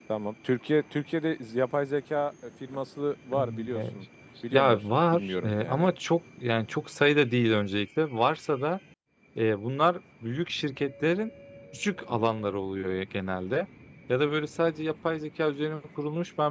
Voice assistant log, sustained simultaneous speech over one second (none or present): present